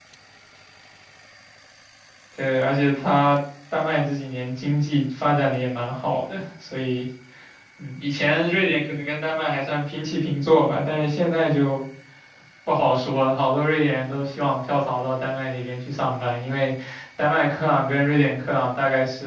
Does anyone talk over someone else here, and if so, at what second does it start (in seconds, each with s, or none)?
none